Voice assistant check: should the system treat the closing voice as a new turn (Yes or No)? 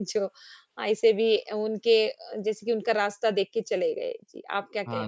Yes